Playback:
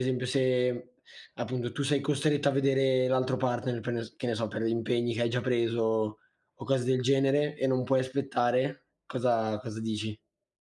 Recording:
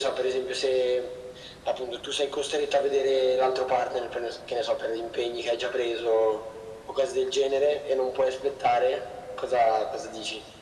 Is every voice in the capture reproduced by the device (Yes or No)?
Yes